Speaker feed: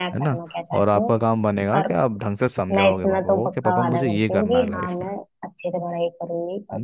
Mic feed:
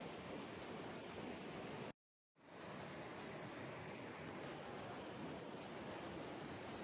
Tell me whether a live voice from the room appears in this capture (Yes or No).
No